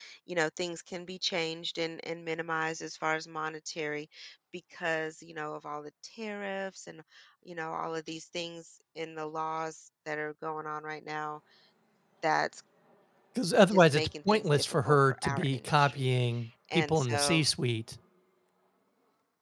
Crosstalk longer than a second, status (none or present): present